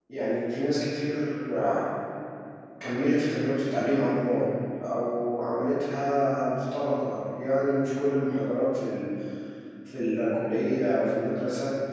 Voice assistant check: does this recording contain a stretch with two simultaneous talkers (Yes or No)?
No